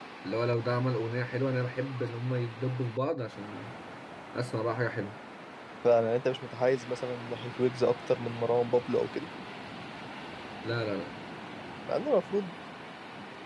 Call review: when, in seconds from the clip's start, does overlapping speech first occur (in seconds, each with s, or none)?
none